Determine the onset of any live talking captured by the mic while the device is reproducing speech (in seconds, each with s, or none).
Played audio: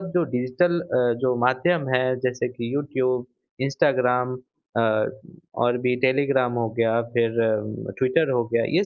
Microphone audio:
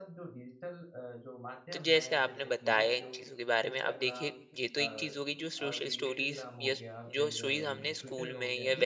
1.7 s